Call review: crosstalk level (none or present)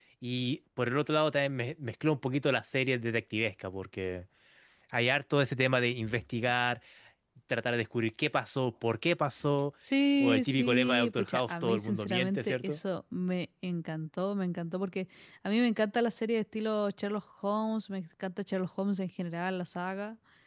present